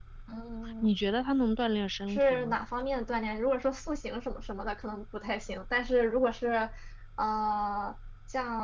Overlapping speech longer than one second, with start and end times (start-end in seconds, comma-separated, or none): none